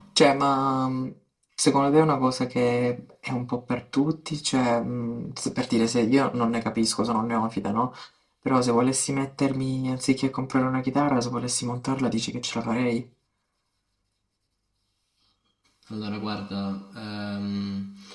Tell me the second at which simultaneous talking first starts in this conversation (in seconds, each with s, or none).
none